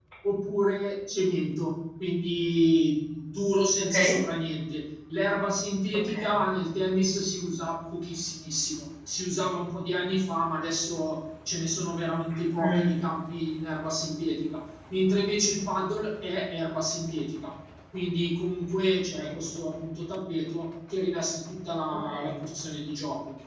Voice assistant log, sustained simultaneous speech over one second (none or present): none